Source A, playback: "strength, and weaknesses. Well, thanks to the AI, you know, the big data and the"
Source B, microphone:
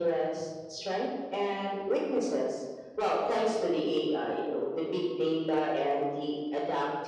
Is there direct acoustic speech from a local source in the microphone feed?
No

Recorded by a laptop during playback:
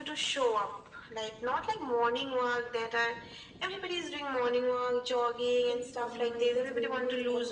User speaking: Yes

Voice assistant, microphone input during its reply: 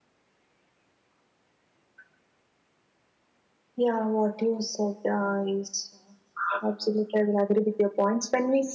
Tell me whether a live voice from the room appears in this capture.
Yes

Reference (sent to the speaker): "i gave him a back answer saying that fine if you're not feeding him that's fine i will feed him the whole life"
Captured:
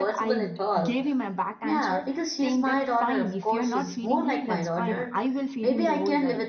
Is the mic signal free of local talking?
No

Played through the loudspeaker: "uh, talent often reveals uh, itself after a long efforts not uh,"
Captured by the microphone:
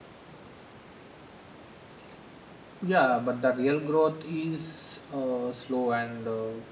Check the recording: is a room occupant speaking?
Yes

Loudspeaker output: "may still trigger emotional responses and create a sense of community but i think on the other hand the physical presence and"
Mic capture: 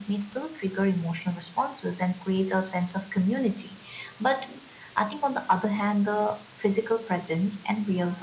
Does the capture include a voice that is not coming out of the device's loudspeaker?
No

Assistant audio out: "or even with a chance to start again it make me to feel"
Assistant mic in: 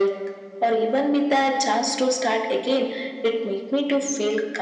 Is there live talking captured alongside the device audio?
No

